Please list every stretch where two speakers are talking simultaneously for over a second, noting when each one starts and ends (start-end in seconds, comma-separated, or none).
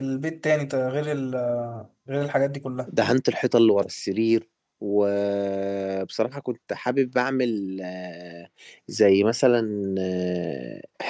none